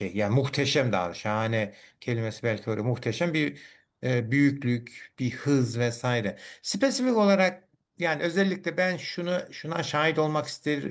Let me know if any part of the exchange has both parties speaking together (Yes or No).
No